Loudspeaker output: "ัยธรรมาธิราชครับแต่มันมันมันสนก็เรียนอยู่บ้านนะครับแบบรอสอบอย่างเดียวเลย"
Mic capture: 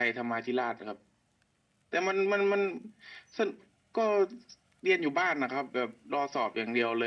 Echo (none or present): present